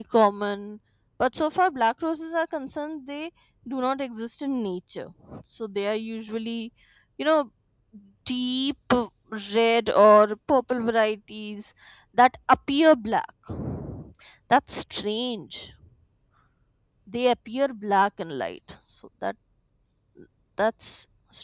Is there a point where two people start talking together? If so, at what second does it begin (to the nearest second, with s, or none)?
none